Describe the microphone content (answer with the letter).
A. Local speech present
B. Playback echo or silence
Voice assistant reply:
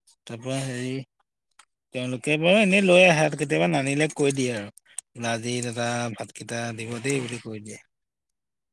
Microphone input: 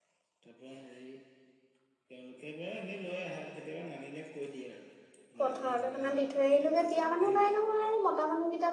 A